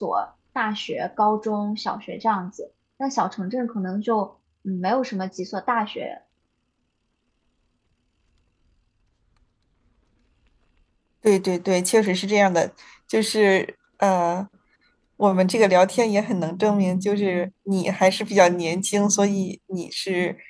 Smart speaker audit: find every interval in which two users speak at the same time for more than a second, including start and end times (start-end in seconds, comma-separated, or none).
none